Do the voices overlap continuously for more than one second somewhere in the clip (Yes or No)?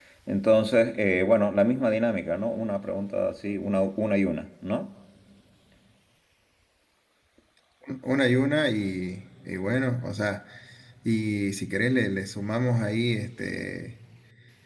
No